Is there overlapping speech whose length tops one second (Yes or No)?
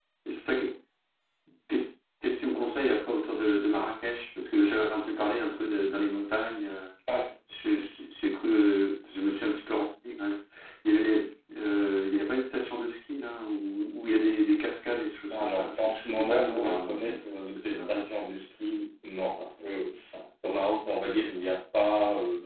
Yes